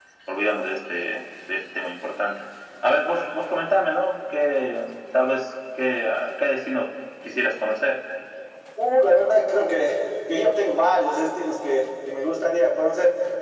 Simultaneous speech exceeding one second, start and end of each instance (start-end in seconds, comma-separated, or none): none